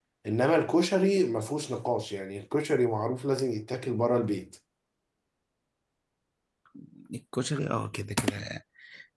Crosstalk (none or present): none